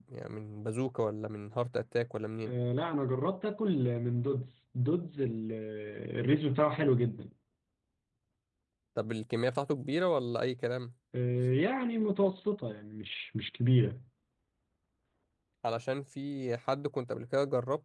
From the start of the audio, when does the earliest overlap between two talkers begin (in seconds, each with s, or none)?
none